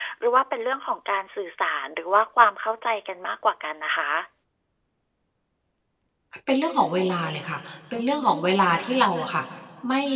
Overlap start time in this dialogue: none

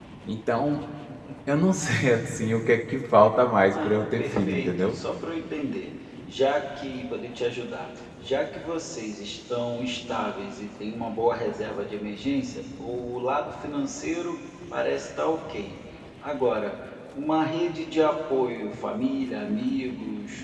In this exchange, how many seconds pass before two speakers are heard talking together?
3.7 s

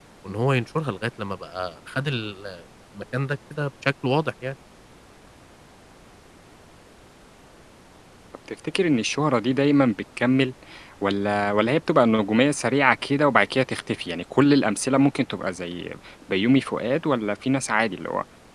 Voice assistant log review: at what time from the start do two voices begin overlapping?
none

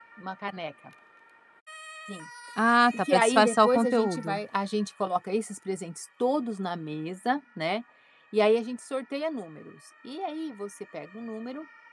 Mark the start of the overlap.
3.0 s

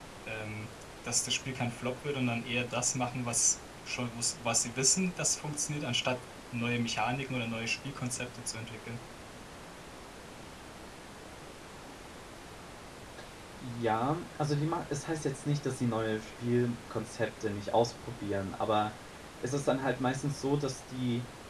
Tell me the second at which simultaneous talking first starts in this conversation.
none

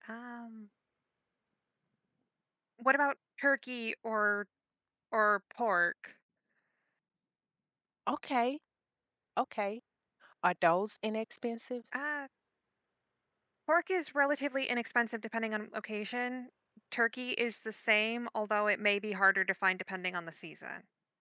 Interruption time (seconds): none

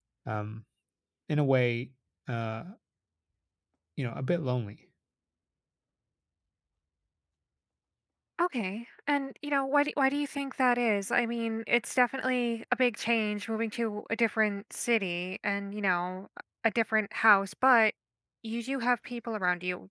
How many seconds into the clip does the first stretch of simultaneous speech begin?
none

